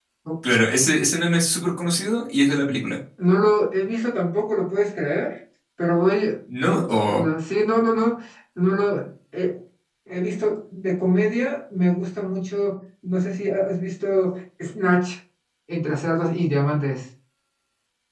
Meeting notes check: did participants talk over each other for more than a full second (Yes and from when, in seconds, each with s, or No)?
No